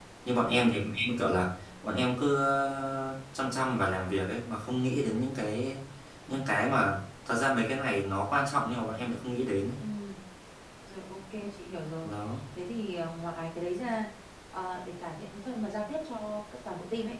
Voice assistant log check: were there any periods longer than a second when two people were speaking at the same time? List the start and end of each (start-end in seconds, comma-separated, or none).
none